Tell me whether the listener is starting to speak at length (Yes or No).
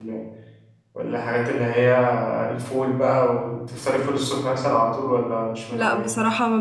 Yes